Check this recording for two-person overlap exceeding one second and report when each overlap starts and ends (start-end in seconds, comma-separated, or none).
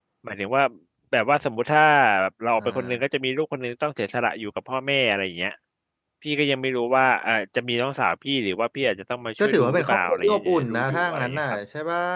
9.4-11.6